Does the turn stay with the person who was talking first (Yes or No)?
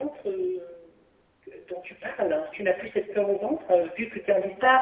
Yes